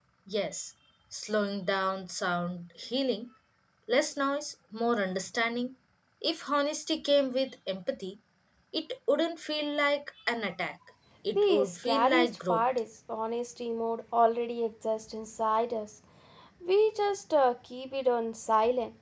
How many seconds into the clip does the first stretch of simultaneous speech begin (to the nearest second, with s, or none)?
11 s